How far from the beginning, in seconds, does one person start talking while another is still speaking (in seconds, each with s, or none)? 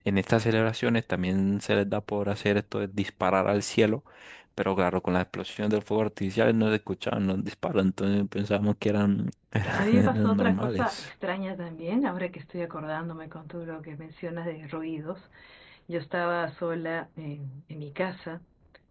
9.8 s